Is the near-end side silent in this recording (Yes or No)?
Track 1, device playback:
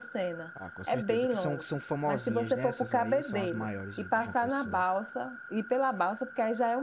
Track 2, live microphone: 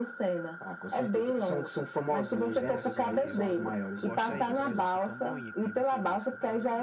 No